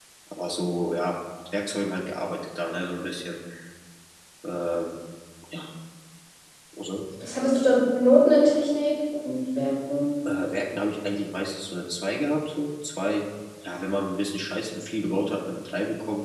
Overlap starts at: none

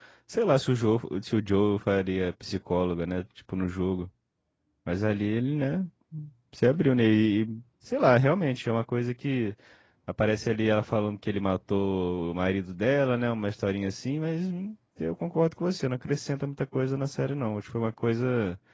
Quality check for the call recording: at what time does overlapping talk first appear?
none

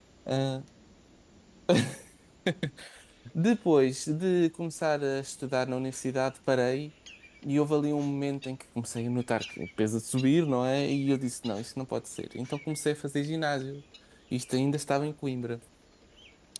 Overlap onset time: none

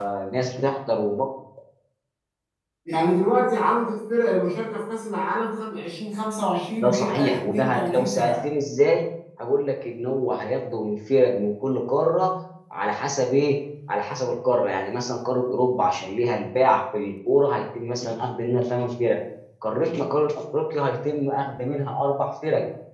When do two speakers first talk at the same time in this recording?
6.8 s

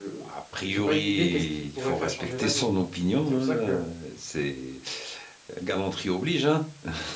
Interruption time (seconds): 0.7 s

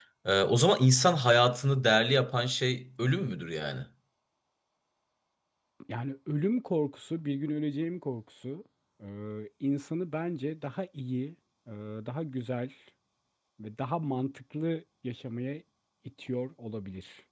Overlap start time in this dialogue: none

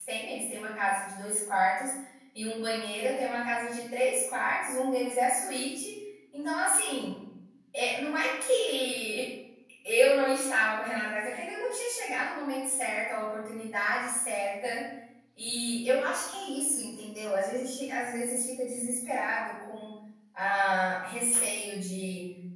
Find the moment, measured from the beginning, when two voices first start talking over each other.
none

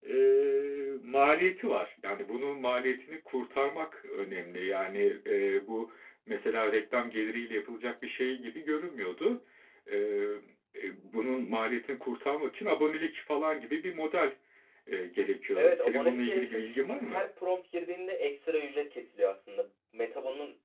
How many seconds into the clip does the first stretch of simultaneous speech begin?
15.6 s

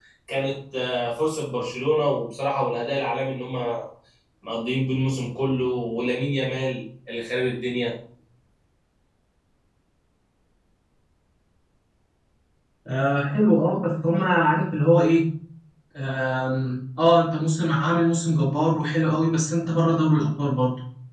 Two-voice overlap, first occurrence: none

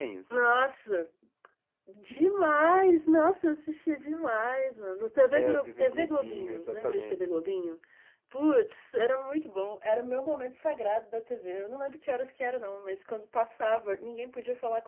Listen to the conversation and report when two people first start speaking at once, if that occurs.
5.3 s

